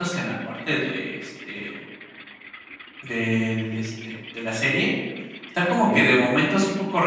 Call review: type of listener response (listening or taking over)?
listening